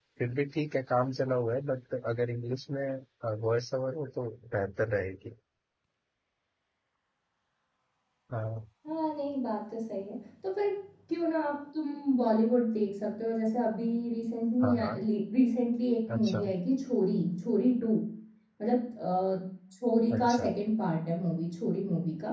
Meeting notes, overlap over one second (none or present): none